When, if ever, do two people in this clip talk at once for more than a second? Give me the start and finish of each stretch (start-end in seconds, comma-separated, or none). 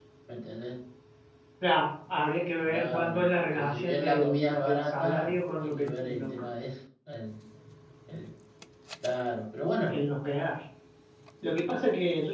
2.6-6.3